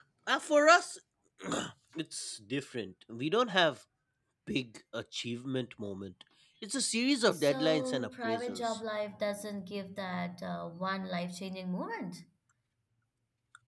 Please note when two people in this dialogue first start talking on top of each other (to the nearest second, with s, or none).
7 s